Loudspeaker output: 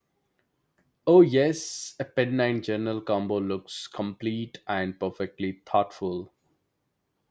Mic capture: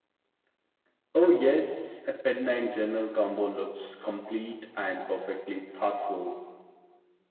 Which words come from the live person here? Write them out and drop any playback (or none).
none